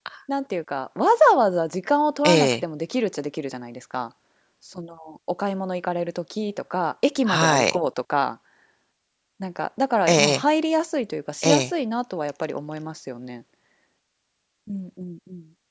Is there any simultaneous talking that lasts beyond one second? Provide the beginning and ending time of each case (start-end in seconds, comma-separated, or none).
none